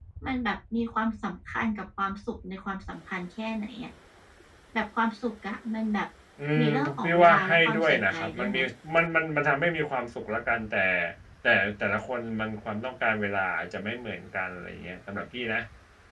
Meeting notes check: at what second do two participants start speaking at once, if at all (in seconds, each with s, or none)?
6.6 s